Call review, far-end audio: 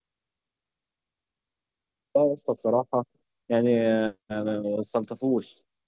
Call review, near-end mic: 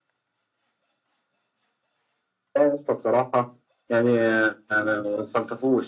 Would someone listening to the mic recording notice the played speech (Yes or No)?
Yes